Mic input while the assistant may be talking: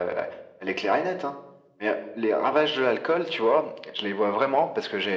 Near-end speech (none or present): none